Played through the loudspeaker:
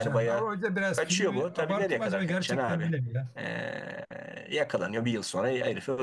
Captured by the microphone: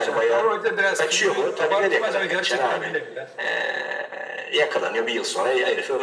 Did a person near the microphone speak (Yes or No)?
No